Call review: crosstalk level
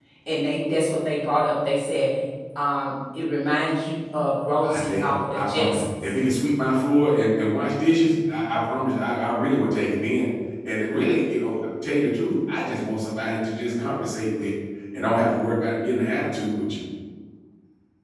present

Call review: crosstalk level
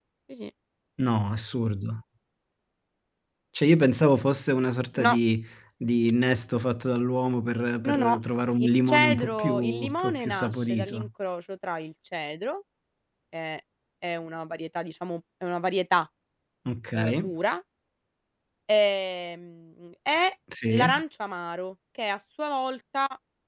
present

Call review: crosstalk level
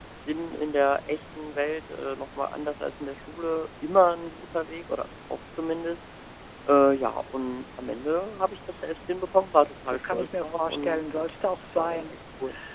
present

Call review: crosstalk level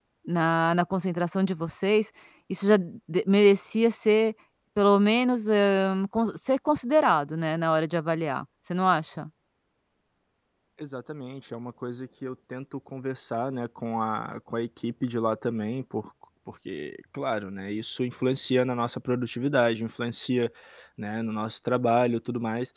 none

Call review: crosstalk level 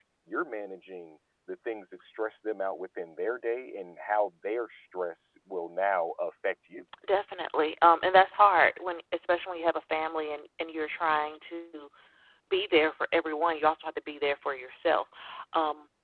none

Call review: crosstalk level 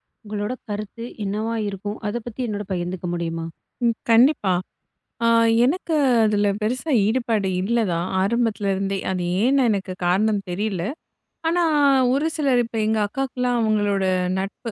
none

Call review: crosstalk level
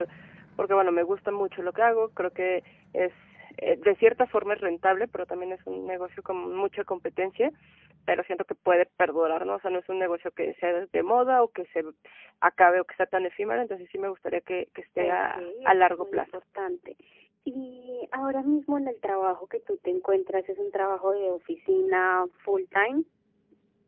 present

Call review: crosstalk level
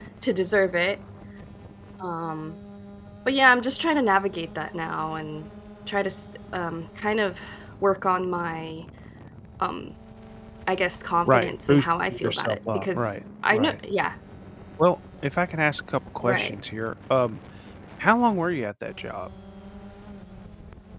present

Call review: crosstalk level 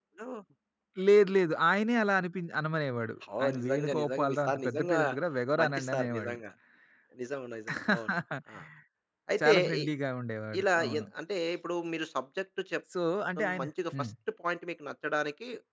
present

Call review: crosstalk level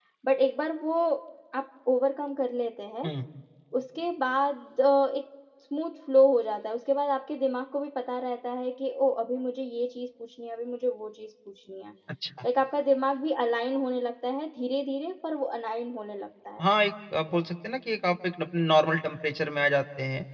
none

